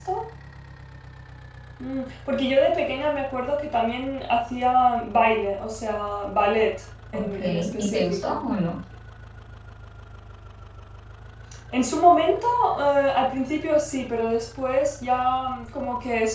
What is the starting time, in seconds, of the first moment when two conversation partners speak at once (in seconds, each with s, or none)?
7.1 s